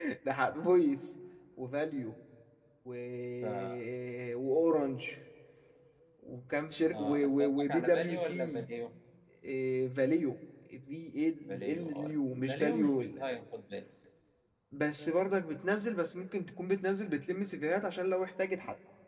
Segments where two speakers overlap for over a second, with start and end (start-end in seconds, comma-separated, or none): 6.9-8.7, 11.5-13.2